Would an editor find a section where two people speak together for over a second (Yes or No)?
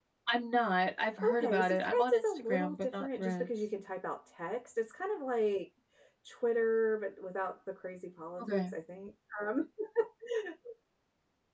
Yes